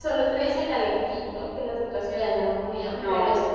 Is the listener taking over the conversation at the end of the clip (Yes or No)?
No